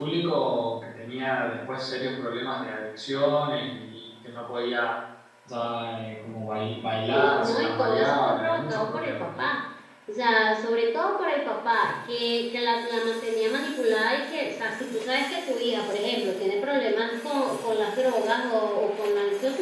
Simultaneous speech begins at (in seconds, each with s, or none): 7.1 s